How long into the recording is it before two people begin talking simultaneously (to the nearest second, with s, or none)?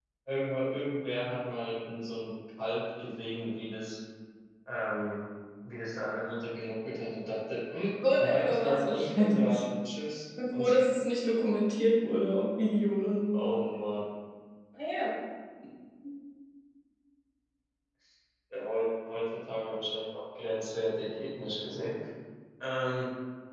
8 s